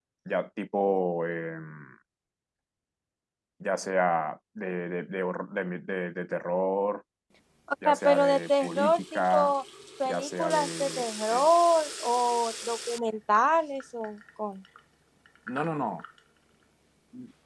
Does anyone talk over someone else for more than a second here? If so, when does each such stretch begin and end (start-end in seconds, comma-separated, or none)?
7.8-9.5, 10.1-11.4